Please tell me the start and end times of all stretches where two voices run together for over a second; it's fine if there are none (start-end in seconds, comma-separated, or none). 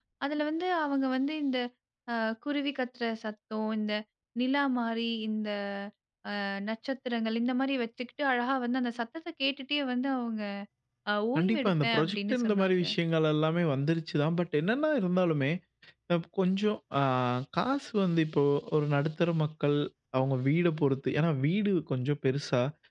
11.4-12.8